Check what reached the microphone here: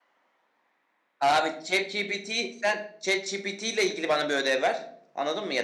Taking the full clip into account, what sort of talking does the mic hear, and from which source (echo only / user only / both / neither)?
user only